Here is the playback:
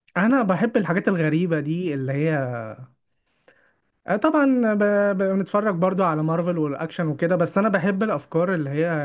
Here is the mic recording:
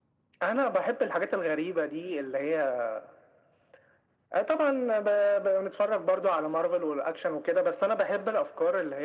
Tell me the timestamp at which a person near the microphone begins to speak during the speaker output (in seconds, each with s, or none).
none